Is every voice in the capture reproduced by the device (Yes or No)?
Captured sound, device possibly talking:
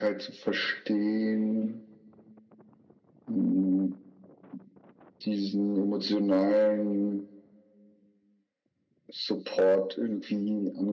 Yes